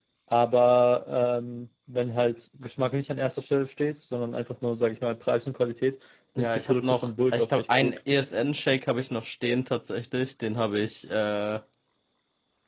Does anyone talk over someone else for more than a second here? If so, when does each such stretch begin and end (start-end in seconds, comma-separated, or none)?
6.4-8.0